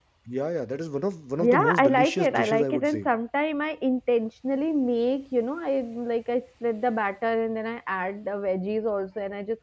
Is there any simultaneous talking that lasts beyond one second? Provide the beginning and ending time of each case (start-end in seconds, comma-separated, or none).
1.4-3.1